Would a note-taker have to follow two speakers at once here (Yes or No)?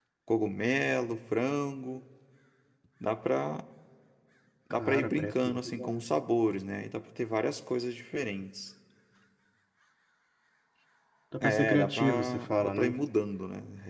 Yes